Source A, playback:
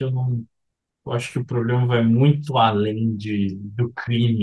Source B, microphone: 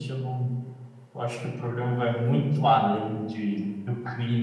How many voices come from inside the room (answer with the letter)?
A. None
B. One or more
A